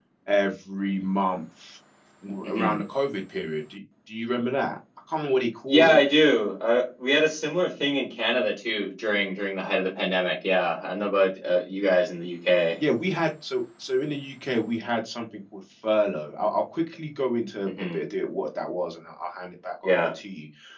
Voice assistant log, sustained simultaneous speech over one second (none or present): none